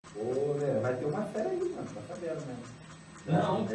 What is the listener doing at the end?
listening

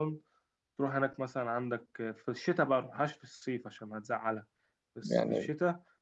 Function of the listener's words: listening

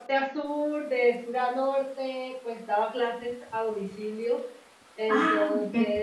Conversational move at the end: listening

